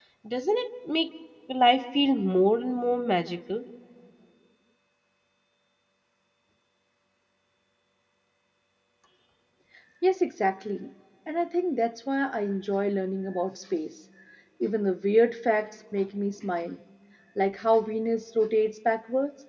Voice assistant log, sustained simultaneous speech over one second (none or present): none